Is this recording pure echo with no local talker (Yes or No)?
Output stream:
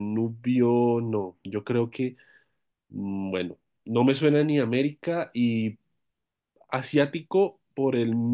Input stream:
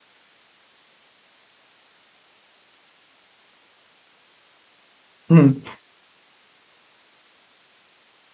No